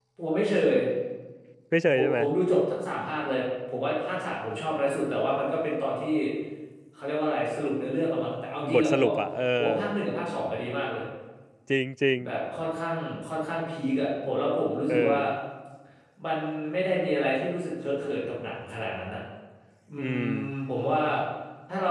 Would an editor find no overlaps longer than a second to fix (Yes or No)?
Yes